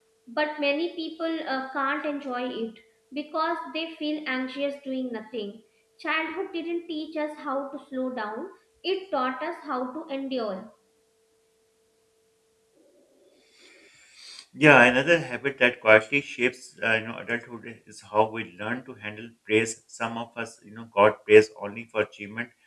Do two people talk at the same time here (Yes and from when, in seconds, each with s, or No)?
No